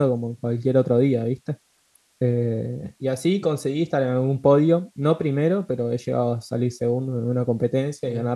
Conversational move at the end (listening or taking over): listening